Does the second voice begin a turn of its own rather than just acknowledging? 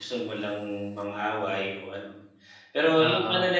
No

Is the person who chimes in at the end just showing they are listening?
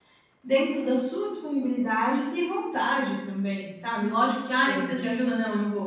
Yes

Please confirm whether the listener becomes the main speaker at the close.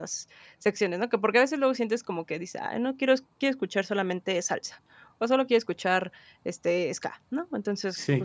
No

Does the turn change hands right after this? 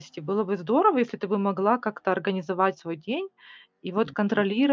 No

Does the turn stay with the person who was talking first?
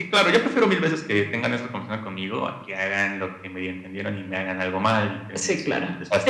No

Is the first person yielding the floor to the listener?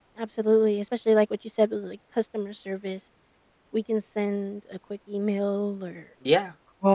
No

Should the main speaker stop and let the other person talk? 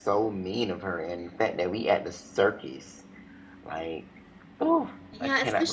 Yes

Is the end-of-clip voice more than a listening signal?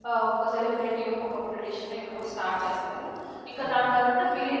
No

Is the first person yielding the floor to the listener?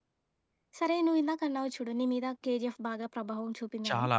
No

